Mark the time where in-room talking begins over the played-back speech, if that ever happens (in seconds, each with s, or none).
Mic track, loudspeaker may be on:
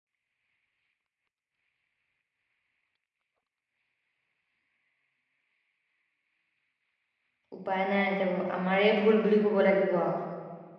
7.6 s